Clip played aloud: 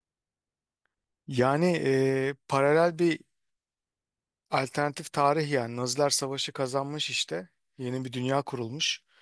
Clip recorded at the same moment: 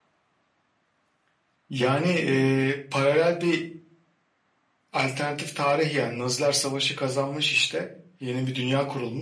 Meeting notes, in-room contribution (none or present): none